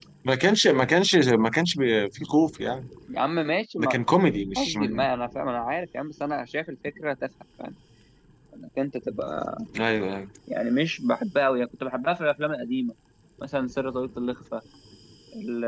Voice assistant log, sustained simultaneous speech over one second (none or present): none